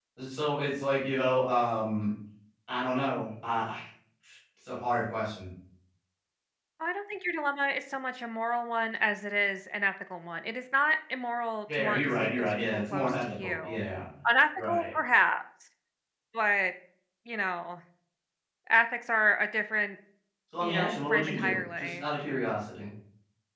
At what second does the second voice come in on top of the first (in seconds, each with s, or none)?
11.8 s